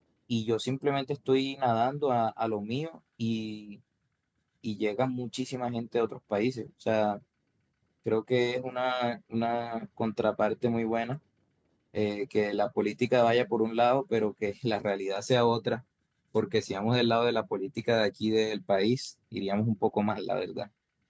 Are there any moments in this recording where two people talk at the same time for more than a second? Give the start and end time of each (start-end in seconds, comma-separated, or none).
none